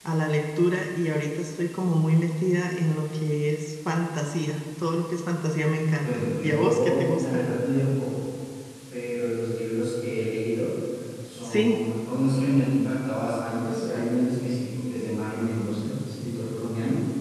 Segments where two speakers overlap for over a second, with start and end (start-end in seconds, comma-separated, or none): 6.0-7.5